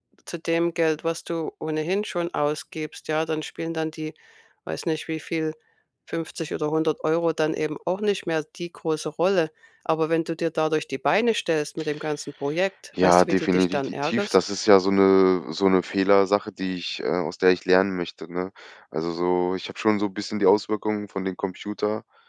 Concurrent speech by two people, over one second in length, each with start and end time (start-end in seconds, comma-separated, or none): 13.0-14.4